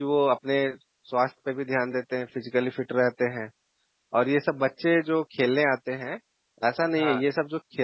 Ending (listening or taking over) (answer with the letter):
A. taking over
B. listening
B